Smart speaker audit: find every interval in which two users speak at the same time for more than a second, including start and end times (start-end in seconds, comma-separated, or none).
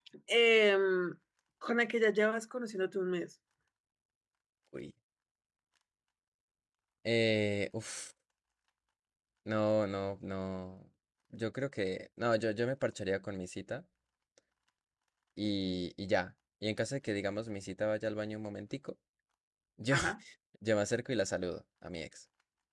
none